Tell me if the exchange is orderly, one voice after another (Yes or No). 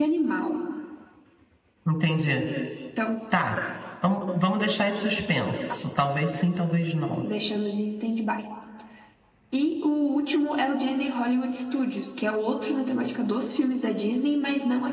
Yes